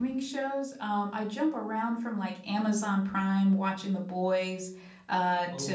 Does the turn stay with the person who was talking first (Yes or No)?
Yes